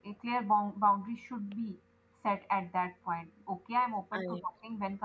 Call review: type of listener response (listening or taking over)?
listening